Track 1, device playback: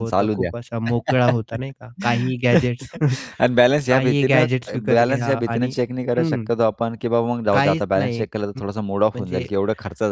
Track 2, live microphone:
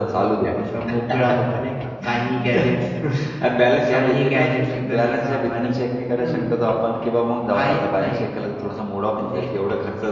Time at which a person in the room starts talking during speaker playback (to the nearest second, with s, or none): none